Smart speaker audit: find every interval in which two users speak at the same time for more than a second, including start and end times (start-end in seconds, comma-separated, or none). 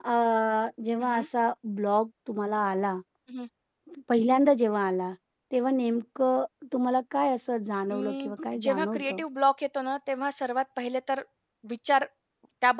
7.9-9.2